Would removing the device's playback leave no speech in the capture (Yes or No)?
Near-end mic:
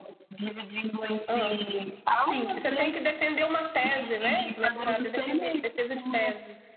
No